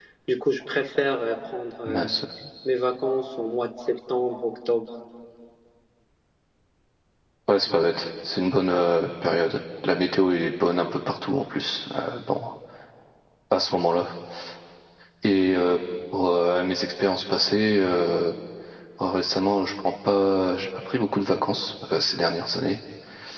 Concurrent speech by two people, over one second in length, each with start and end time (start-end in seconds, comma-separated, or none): none